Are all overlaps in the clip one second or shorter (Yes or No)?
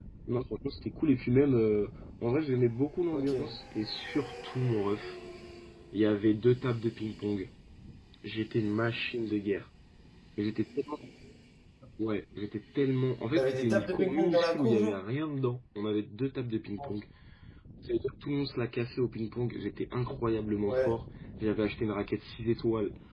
No